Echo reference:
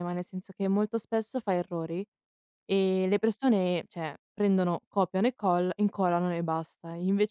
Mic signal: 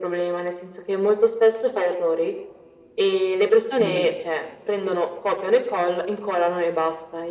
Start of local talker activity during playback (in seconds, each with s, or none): 3.7 s